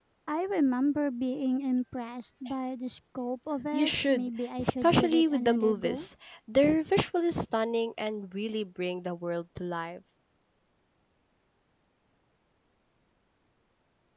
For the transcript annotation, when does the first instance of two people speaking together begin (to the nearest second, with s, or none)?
4 s